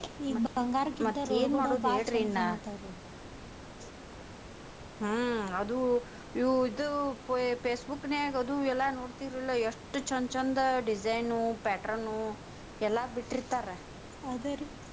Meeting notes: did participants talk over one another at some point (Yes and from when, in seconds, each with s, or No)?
Yes, from 1.0 s